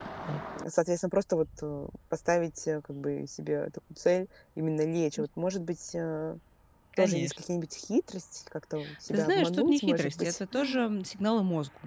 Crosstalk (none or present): present